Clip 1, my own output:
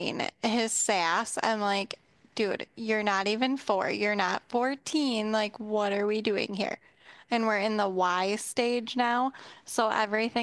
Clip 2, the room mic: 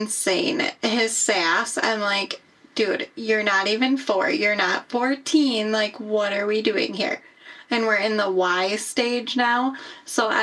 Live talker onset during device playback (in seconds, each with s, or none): none